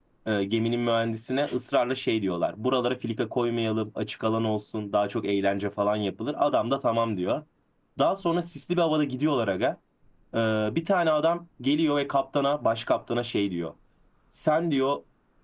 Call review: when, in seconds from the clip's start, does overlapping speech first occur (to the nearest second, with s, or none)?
none